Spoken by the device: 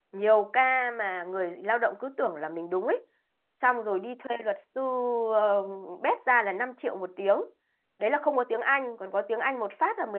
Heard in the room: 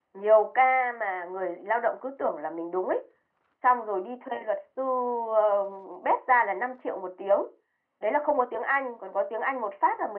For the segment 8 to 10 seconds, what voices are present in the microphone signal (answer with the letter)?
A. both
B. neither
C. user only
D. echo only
D